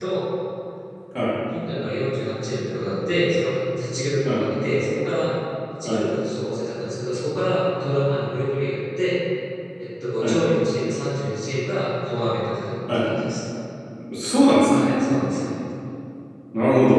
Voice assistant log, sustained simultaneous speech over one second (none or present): none